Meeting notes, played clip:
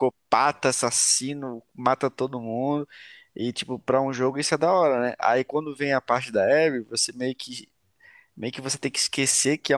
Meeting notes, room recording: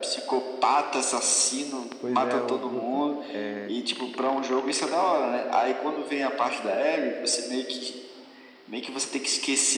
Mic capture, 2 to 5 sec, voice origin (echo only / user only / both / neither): both